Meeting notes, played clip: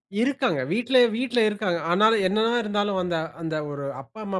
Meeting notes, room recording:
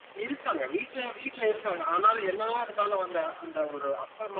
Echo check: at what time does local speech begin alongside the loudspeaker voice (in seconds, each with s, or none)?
none